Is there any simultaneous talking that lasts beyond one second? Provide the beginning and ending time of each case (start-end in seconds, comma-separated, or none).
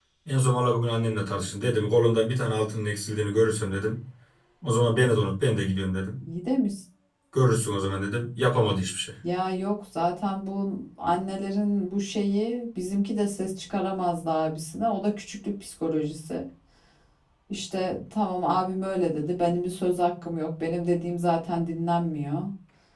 none